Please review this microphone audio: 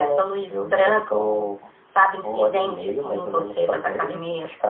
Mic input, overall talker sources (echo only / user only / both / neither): echo only